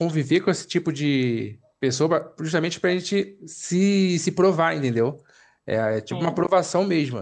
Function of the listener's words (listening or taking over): listening